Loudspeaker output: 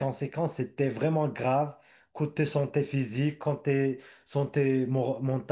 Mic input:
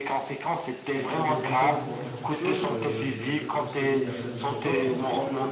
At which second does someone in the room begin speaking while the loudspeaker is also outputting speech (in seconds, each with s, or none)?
0.9 s